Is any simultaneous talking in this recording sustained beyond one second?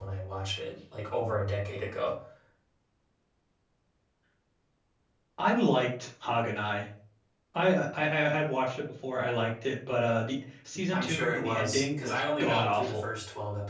Yes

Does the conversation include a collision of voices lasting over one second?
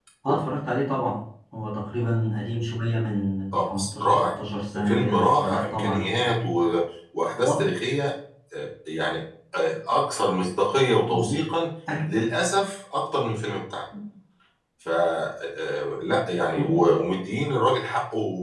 Yes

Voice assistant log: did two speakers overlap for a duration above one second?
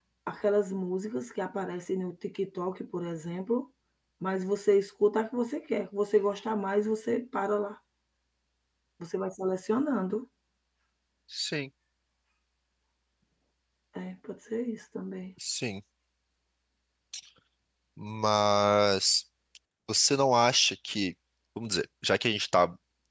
No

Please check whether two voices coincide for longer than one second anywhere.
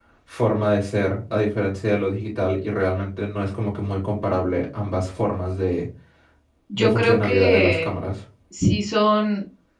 Yes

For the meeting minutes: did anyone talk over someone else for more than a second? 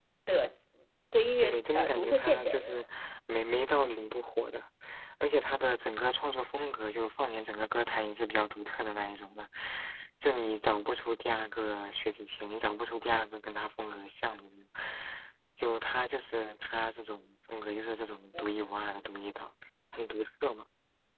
Yes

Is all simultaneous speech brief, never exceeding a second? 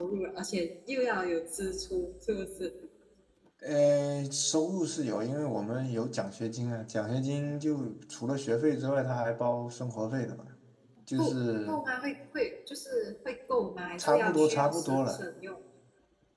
No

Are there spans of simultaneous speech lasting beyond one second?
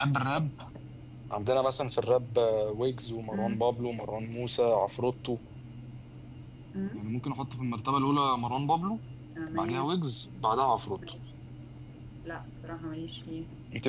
No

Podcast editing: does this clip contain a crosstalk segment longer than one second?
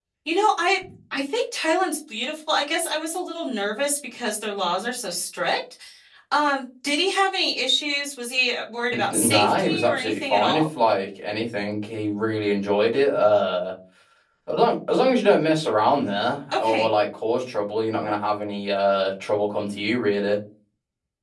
Yes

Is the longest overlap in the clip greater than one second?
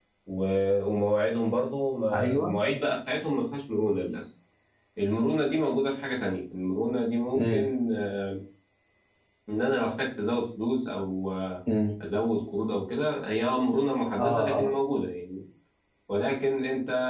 No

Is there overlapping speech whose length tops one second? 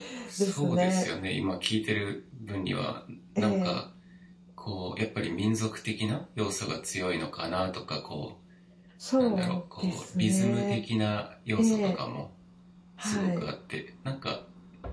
Yes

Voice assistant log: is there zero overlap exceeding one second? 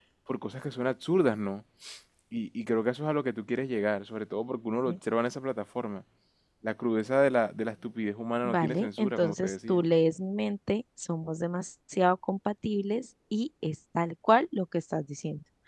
No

